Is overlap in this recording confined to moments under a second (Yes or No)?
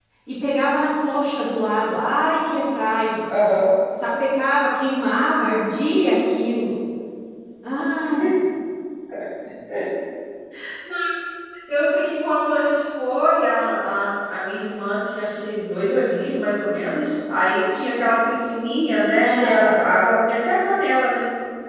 Yes